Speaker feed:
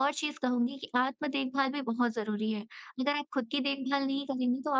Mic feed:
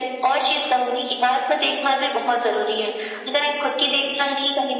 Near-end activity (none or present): none